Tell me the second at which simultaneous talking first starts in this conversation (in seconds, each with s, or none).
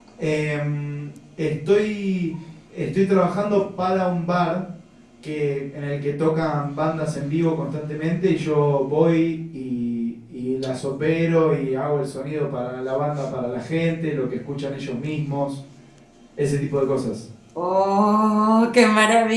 none